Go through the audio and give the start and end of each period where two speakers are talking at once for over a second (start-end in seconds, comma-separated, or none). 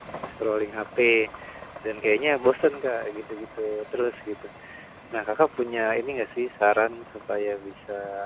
none